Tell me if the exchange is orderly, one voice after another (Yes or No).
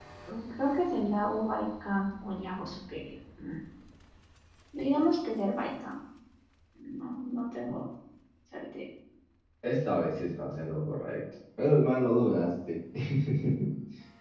Yes